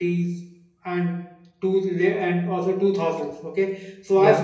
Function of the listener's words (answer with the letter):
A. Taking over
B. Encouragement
B